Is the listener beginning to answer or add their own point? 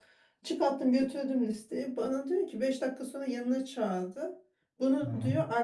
No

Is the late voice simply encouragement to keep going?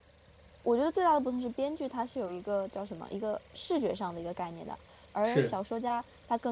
Yes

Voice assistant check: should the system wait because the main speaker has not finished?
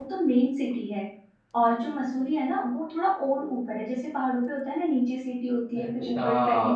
Yes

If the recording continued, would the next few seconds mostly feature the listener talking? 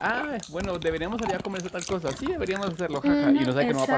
Yes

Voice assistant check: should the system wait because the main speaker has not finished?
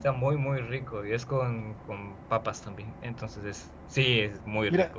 No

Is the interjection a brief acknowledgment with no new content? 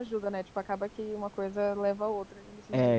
No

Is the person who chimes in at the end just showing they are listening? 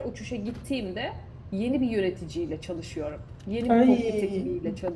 Yes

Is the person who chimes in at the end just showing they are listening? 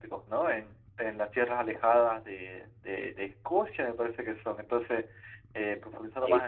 Yes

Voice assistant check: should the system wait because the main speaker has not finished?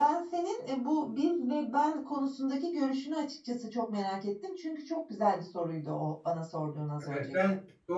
No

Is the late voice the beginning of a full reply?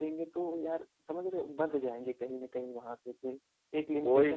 Yes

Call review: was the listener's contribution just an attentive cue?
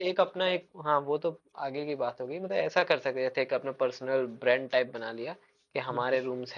Yes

